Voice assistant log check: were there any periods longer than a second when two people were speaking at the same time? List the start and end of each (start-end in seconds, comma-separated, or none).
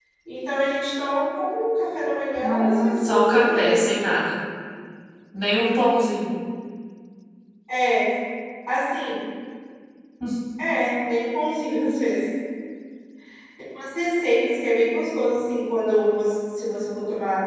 2.4-3.9